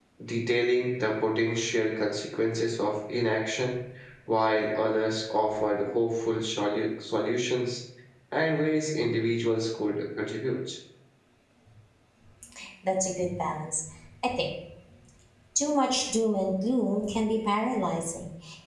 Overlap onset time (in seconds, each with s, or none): none